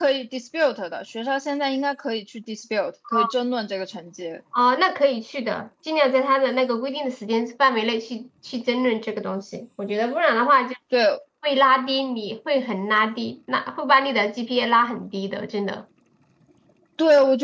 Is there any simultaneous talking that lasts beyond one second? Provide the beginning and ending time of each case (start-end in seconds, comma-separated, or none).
none